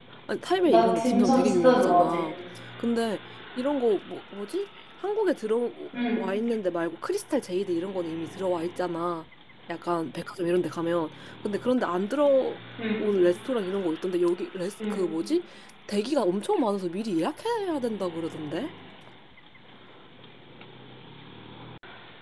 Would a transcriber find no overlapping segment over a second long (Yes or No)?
No